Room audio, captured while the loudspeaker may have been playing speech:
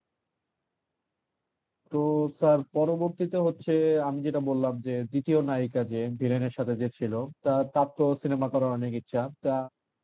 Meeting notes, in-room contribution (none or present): present